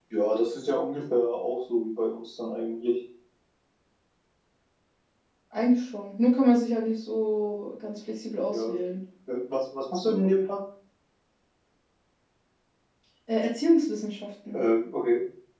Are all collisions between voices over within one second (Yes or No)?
Yes